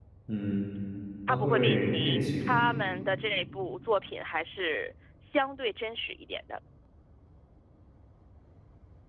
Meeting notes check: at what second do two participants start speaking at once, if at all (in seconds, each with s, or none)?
1.3 s